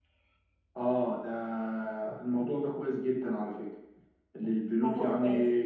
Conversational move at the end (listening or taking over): listening